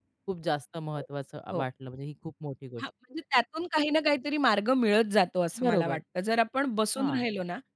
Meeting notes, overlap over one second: none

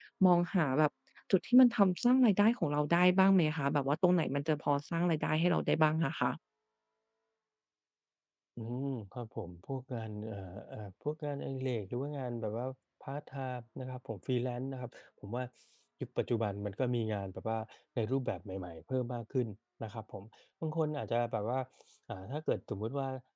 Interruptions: none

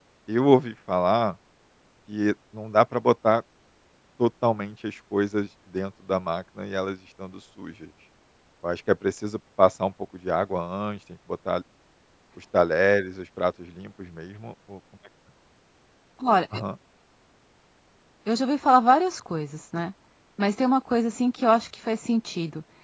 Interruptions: none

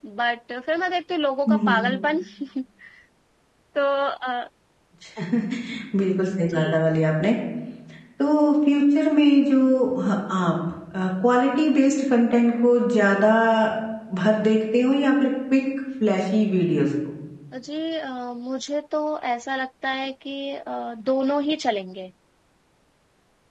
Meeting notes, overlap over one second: none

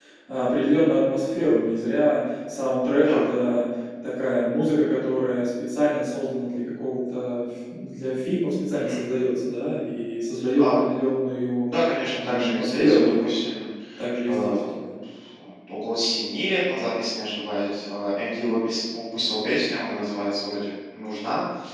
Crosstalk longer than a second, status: present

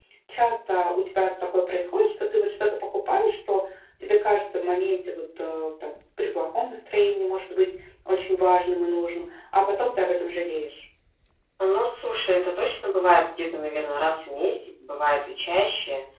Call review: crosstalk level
none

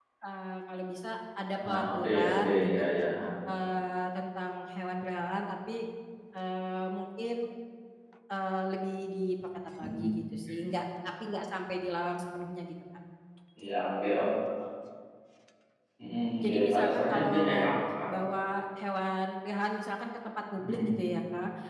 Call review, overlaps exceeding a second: present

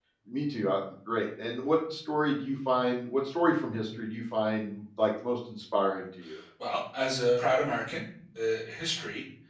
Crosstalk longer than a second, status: none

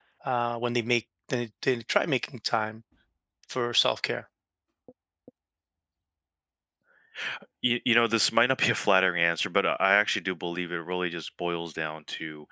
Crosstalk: none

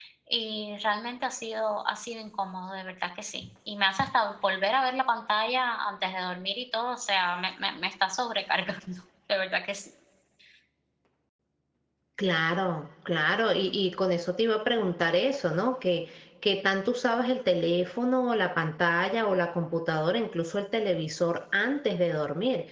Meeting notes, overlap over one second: none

